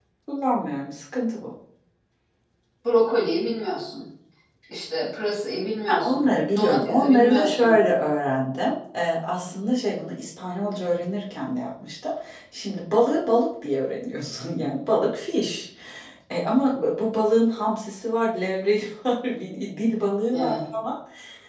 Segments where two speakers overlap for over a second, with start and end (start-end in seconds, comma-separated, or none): 5.9-7.8